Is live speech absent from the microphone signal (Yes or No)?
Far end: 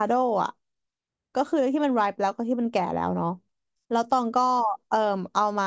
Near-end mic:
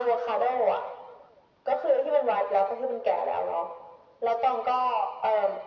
Yes